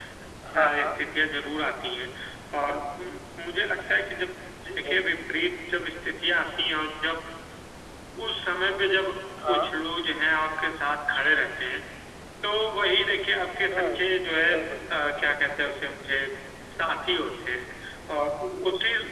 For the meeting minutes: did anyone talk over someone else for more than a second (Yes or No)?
No